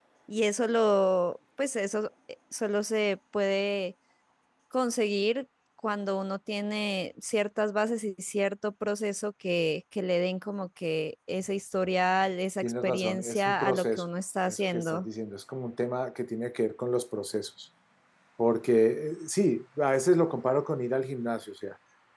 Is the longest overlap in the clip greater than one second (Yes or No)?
Yes